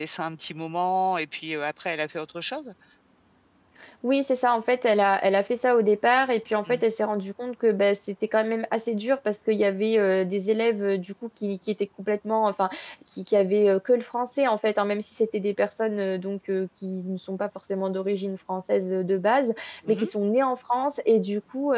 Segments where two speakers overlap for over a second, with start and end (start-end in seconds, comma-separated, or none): none